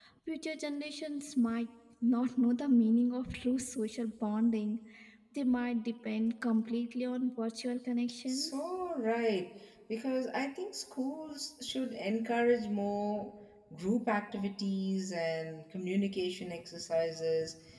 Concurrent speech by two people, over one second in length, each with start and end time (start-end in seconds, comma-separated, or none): none